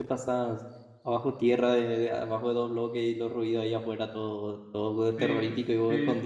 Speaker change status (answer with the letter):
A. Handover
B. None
A